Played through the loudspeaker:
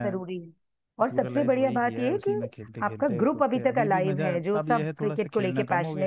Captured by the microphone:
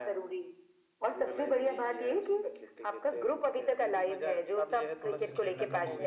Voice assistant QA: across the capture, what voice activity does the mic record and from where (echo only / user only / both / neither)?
both